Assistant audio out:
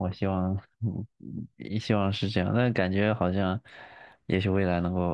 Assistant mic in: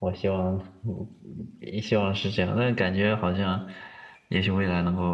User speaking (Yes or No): No